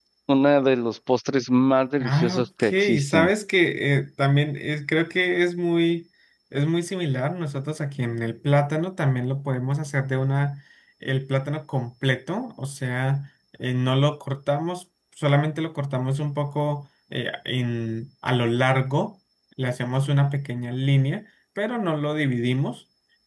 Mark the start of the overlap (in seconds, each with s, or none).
2.0 s